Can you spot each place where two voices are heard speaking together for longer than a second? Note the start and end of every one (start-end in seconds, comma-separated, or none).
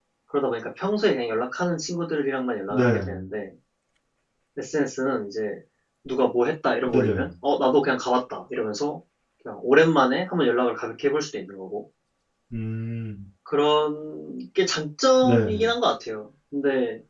none